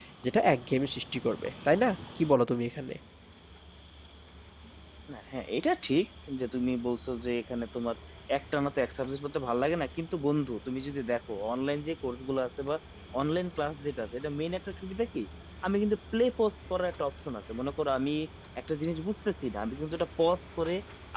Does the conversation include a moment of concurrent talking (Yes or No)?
No